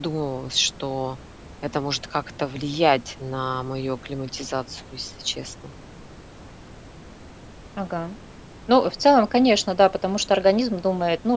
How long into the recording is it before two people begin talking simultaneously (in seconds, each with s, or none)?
none